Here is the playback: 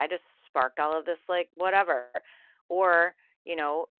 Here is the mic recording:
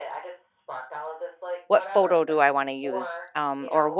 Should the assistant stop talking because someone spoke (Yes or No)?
Yes